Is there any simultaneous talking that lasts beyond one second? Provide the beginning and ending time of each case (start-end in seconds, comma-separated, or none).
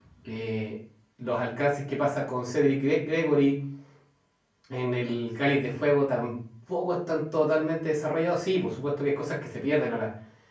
none